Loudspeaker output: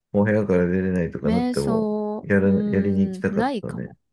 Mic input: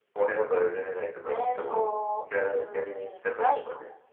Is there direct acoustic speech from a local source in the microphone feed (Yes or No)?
No